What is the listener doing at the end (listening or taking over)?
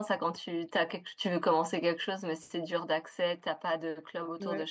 taking over